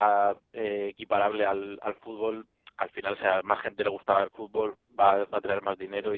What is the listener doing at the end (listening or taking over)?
taking over